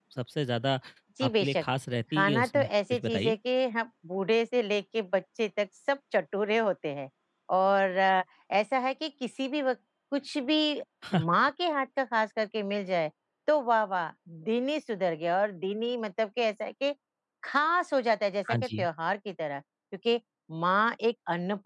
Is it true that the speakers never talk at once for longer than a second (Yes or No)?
No